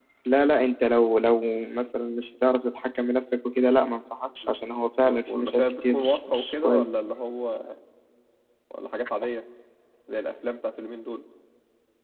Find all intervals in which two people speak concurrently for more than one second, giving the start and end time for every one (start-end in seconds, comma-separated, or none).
5.0-7.0